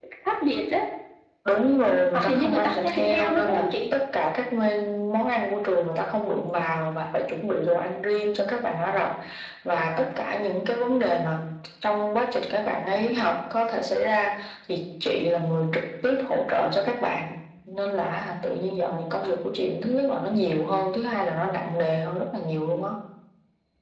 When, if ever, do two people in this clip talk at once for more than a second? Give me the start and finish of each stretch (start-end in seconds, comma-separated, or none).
2.1-3.8